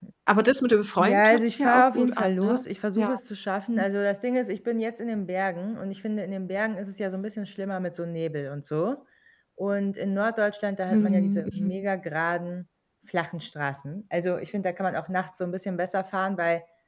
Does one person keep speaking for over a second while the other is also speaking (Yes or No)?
Yes